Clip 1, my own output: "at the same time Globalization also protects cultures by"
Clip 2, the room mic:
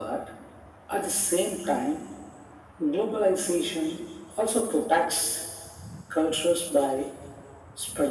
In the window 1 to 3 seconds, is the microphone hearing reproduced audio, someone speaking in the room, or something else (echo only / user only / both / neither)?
echo only